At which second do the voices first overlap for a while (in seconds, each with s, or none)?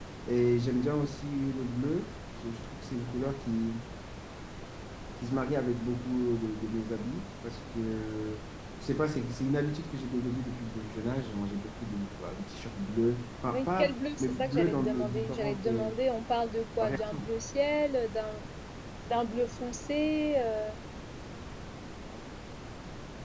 13.5 s